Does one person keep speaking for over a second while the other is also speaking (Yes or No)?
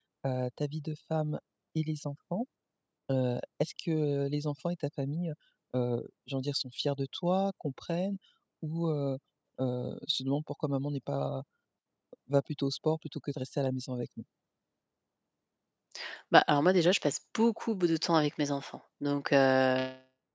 No